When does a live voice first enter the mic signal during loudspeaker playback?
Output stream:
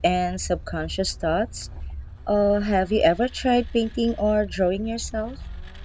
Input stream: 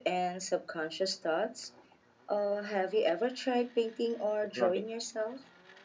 4 s

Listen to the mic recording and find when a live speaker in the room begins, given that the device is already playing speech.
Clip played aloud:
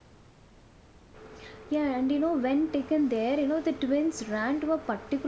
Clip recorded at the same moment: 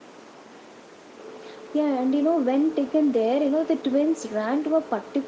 none

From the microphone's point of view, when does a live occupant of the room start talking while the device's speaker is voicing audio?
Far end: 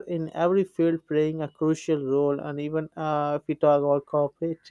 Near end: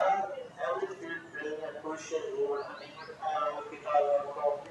none

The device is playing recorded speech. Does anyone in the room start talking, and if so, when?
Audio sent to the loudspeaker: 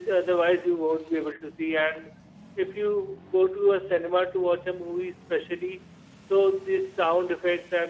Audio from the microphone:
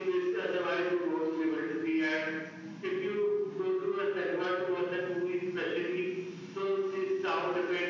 none

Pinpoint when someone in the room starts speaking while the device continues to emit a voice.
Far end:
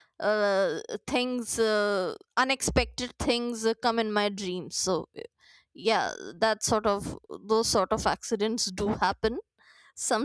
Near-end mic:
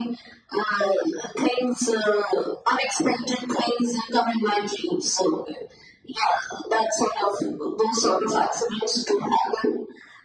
none

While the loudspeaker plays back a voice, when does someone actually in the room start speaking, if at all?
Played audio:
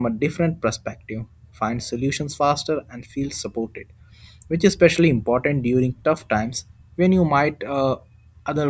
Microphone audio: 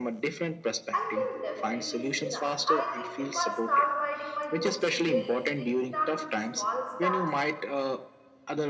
1 s

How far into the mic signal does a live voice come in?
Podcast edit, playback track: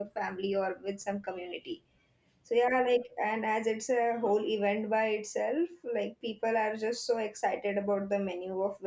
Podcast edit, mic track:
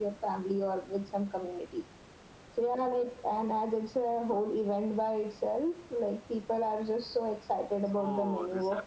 8 s

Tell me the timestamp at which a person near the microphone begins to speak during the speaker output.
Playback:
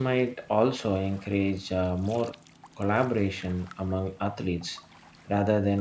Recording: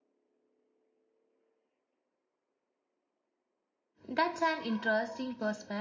4 s

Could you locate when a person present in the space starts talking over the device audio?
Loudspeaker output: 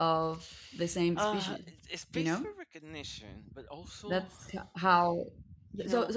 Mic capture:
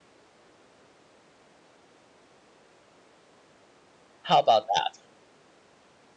4 s

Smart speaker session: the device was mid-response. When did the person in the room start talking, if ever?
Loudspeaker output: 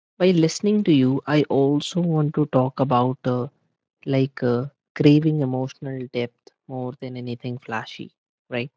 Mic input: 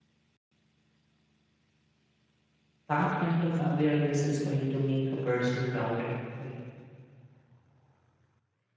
3 s

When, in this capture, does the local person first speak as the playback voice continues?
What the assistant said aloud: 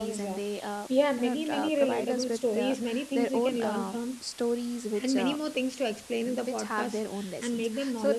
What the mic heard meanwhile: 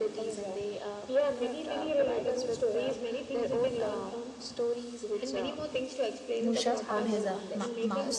6 s

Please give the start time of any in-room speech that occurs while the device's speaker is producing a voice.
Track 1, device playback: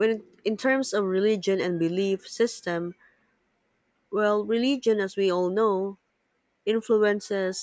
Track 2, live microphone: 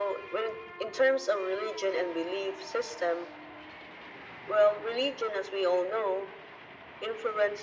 none

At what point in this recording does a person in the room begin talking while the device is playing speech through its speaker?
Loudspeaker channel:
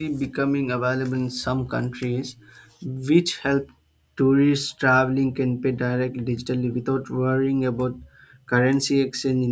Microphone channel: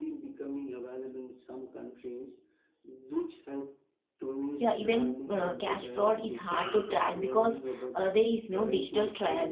5 s

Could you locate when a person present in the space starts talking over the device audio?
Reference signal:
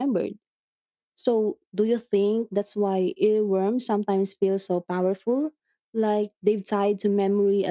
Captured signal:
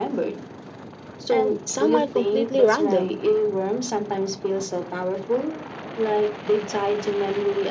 1 s

